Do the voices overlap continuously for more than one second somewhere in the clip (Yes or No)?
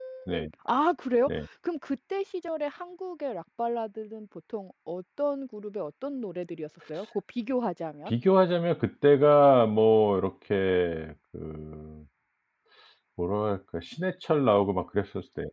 No